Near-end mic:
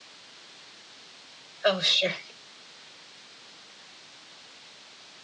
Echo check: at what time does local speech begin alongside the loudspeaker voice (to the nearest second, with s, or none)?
2 s